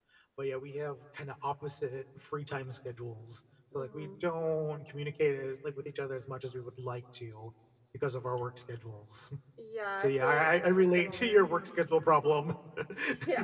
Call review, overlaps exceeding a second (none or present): present